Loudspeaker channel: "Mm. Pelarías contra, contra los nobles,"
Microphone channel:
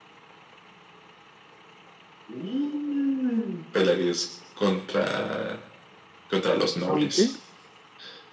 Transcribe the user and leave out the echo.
aunque,

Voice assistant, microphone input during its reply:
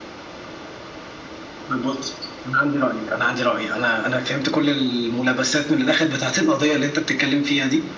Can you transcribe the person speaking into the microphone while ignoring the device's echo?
none

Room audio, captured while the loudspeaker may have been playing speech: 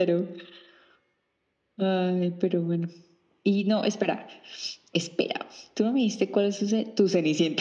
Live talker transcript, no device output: none

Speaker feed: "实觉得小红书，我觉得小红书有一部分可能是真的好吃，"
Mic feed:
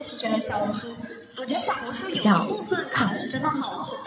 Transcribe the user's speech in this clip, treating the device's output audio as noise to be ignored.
比较胖。

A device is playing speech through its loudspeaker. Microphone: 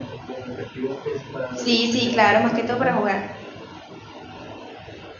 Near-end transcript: Sí, sí, claro, más que todo para jugar.

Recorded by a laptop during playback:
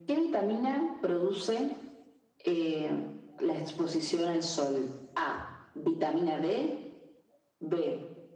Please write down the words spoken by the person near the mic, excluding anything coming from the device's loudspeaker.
none

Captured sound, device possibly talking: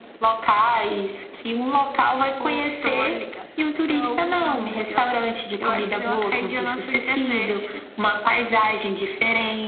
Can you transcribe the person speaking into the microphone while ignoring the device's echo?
none

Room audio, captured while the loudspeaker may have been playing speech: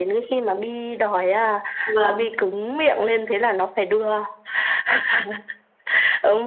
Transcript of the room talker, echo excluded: vâng.

